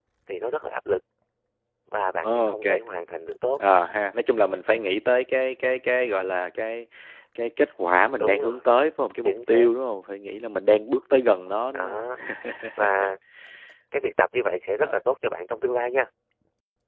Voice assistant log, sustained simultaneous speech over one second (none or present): none